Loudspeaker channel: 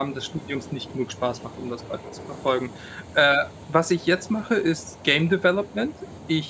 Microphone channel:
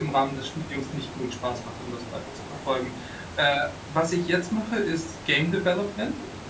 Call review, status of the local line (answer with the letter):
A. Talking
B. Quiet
B